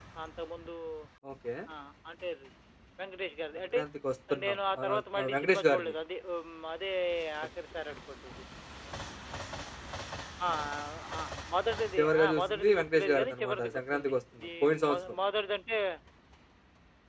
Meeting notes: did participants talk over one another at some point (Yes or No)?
Yes